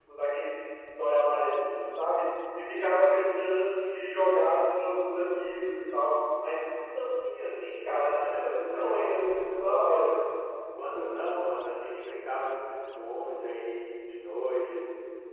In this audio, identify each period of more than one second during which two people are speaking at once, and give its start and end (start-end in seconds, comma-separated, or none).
8.0-10.1